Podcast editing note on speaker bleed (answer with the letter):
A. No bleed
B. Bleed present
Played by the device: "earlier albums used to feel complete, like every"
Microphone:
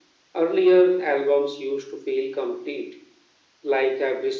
B